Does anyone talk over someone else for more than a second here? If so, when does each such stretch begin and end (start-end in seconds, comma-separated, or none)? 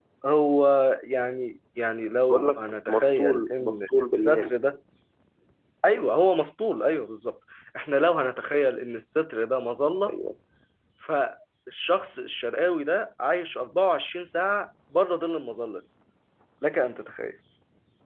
2.2-4.5